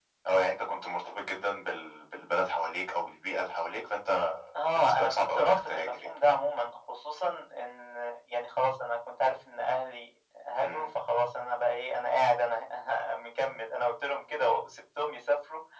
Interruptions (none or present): present